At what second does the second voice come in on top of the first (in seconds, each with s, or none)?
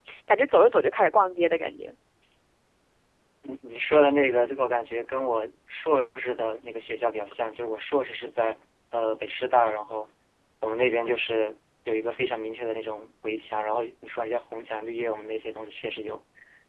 none